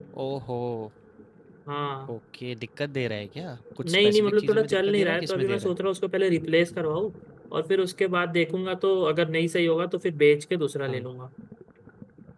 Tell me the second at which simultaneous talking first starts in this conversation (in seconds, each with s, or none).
3.8 s